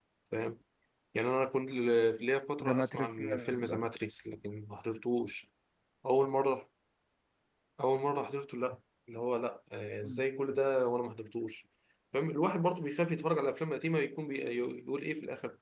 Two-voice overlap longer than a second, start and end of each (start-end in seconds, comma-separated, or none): 2.6-3.9